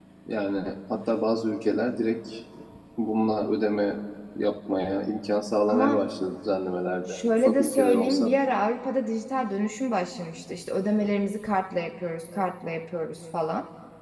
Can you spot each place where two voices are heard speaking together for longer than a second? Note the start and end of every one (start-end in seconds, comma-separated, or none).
7.1-8.3